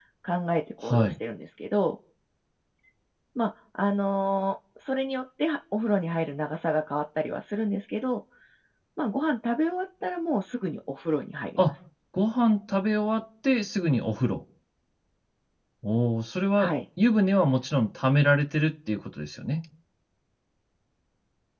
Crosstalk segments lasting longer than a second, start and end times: none

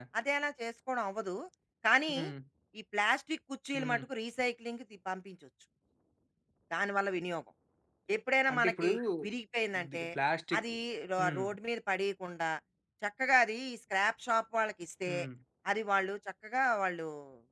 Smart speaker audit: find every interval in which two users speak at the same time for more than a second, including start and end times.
none

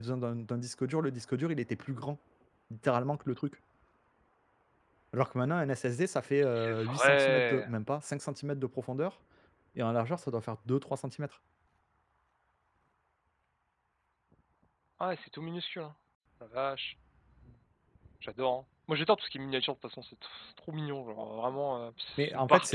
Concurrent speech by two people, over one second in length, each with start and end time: 6.4-7.7

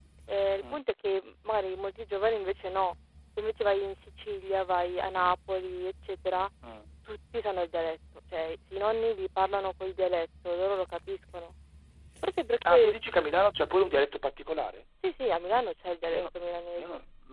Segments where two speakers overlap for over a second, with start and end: none

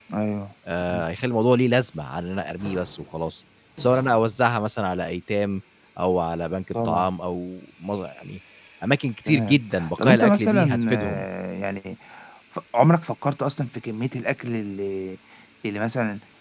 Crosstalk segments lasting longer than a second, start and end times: 10.0-11.3

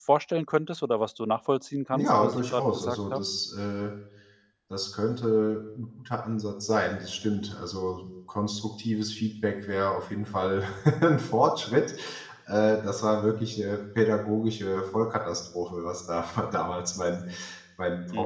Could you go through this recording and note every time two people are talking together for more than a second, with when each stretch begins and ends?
1.9-3.2

